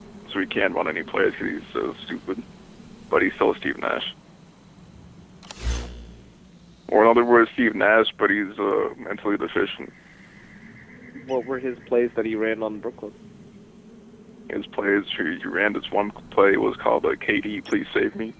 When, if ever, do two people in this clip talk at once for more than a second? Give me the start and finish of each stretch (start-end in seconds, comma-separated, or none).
none